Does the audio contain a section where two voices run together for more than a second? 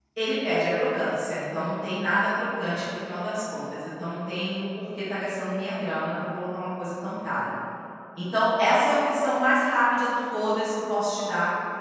No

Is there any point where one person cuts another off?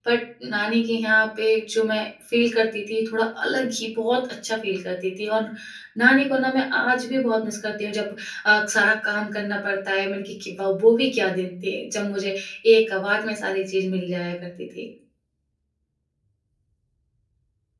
No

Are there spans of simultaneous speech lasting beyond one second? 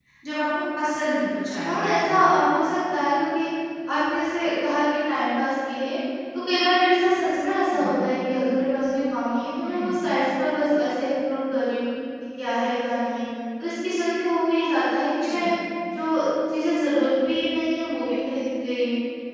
No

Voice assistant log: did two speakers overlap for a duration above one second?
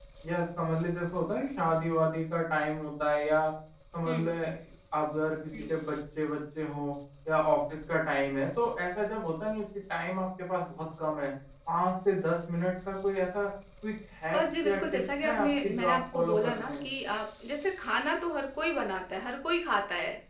Yes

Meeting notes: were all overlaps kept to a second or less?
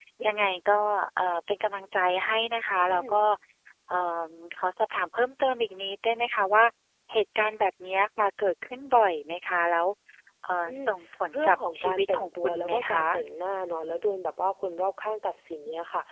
No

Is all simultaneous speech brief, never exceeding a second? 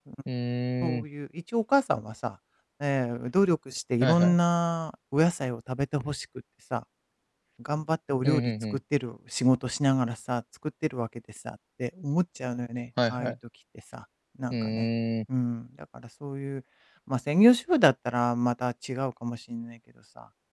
Yes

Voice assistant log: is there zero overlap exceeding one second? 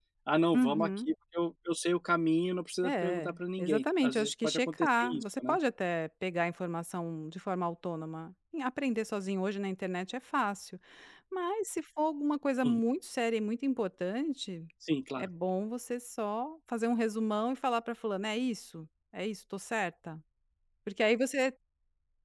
No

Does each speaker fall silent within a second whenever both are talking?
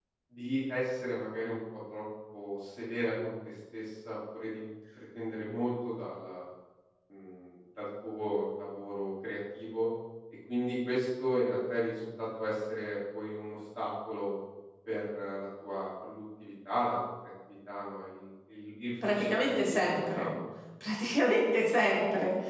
No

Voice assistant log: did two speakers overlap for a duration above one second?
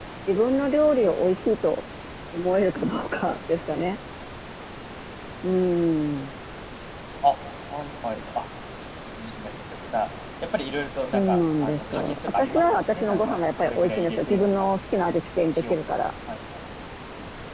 Yes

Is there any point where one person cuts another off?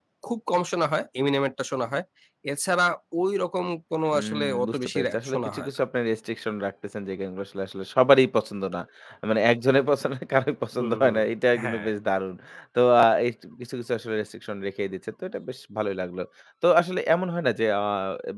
Yes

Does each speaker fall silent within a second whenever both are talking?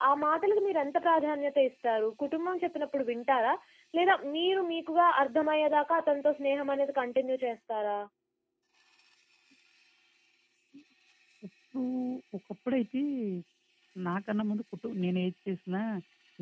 Yes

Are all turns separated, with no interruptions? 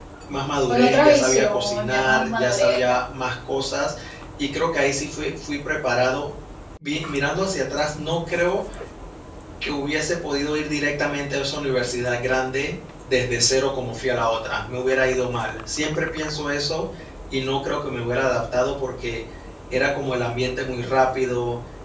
No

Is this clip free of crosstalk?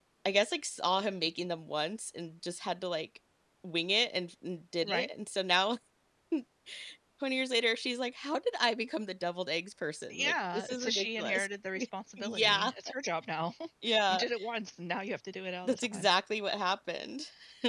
No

